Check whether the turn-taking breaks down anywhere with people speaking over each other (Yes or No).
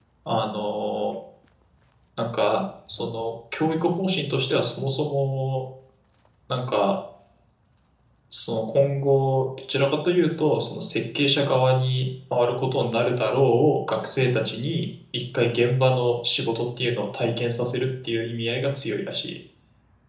No